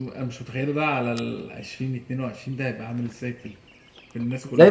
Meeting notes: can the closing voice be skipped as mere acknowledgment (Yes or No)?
No